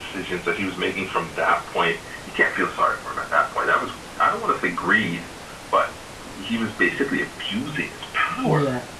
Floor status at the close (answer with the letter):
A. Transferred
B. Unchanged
A